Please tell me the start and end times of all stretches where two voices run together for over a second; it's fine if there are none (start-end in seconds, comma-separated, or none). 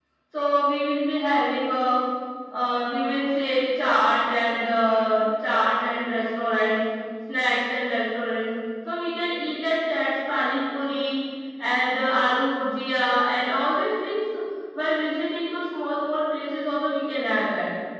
none